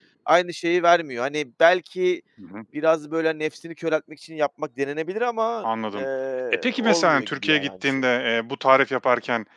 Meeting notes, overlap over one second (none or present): present